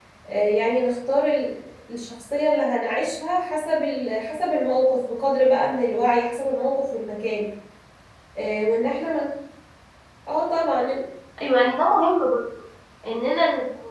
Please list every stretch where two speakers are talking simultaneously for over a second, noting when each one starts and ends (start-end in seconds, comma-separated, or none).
none